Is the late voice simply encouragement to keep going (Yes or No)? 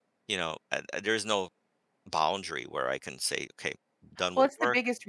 No